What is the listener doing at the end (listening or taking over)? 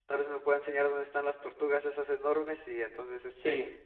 listening